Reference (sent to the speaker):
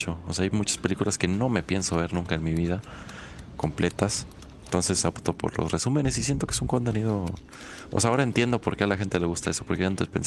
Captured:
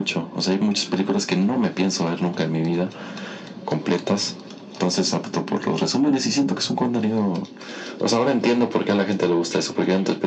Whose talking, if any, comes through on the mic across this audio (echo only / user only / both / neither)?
echo only